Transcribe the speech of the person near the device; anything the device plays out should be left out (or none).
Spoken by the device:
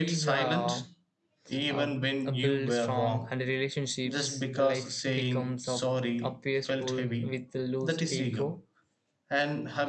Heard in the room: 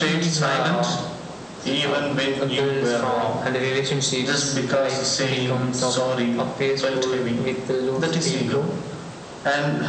none